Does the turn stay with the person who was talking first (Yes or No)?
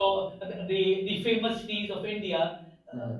Yes